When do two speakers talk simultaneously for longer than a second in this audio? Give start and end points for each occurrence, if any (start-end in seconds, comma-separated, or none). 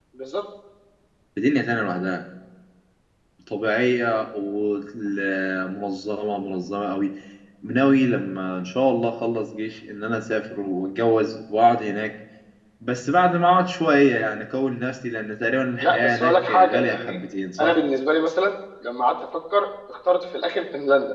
15.8-17.2